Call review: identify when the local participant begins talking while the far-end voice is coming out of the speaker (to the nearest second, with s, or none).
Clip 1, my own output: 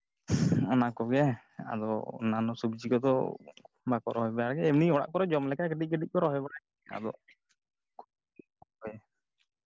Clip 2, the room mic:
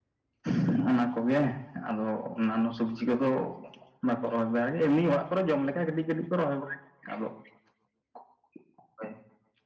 none